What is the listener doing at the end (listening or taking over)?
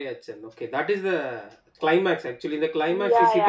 taking over